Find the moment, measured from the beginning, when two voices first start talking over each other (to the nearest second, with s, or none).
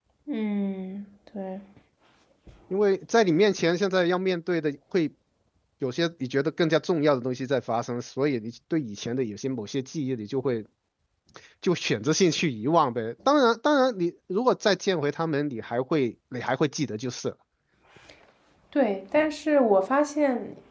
none